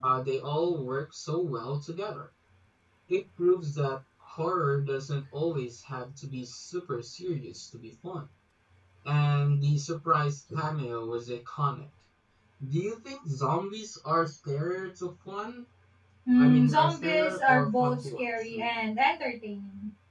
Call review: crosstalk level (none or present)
present